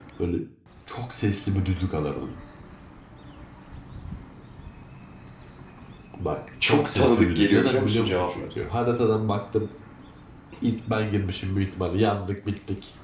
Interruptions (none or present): present